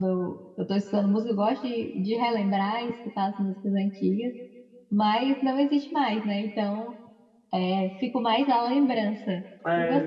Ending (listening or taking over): taking over